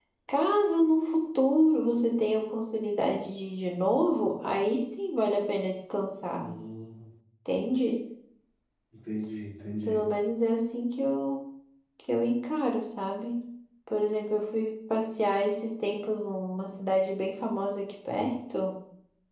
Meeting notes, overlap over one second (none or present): none